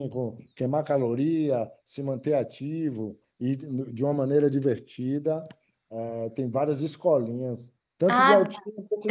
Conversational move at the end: taking over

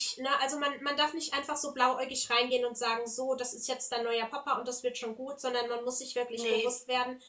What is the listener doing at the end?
listening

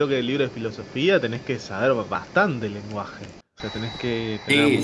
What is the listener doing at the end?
taking over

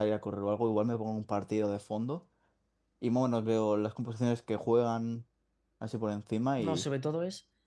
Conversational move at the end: taking over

